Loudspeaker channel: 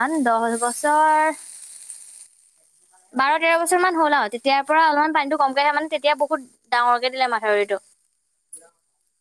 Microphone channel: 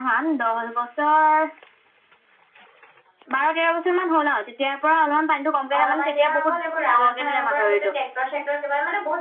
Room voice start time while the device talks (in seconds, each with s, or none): 5.8 s